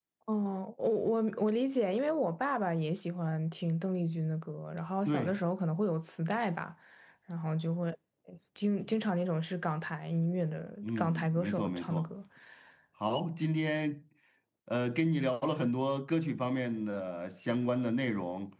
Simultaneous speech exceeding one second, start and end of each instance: 10.8-12.1

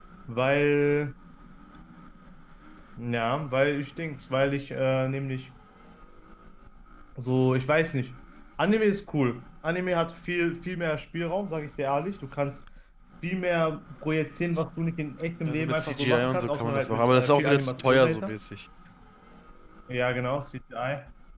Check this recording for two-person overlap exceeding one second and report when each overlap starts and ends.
15.4-18.3

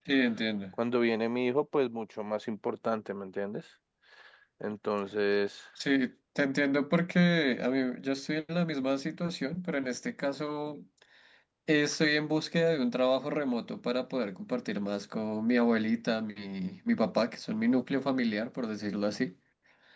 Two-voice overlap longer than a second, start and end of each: none

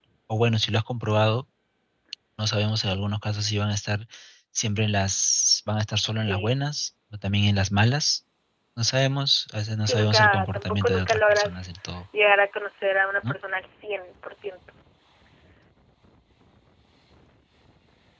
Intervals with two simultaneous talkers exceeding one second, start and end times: 9.8-11.7

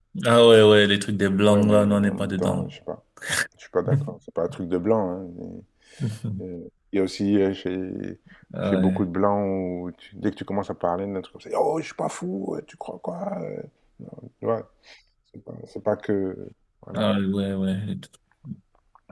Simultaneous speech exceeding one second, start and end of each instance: 1.5-2.7

